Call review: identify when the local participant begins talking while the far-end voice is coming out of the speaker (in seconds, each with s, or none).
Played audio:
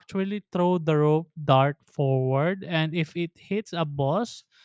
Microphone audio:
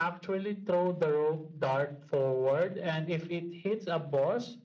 none